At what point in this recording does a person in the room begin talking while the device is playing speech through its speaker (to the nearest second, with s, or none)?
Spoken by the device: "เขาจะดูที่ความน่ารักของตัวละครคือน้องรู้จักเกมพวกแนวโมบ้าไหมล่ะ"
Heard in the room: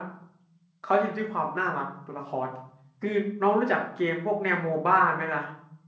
none